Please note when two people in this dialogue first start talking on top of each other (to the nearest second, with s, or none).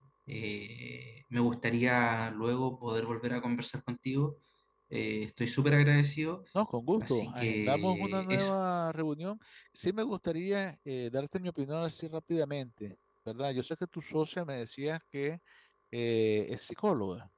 7 s